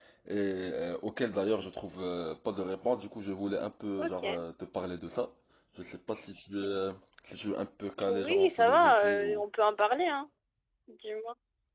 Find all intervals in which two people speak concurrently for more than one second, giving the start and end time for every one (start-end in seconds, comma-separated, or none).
8.1-9.4